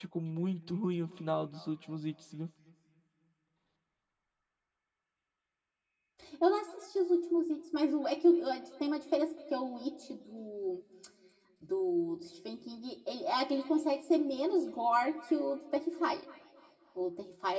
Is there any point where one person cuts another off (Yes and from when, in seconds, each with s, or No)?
No